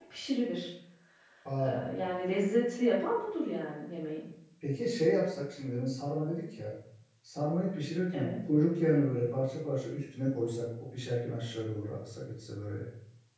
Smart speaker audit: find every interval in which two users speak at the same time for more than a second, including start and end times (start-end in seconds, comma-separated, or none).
none